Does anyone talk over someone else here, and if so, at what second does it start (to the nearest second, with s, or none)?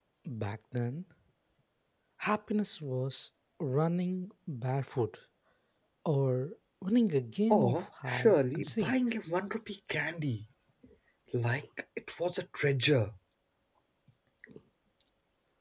8 s